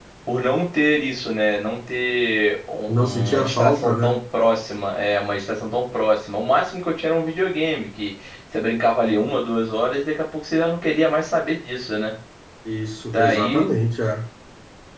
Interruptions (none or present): present